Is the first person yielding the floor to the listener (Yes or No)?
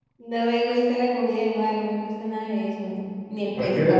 No